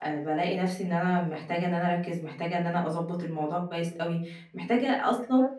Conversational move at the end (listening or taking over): listening